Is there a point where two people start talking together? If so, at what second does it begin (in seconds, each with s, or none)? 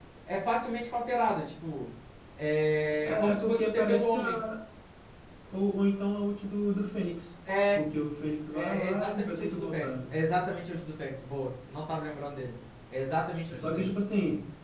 3.0 s